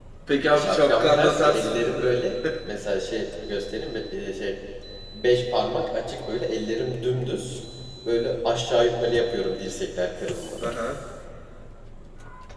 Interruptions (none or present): present